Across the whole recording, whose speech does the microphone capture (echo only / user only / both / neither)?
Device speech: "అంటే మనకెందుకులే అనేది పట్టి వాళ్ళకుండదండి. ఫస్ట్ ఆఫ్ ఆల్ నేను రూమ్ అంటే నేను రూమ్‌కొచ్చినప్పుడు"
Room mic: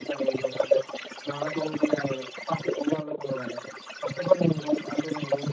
echo only